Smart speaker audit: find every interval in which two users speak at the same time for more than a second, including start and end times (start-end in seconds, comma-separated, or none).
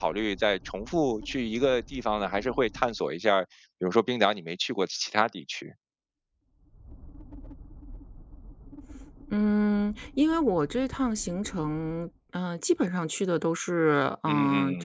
none